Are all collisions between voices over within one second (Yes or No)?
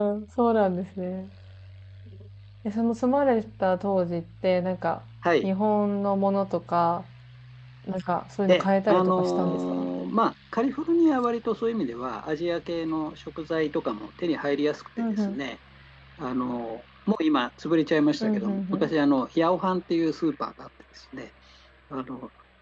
No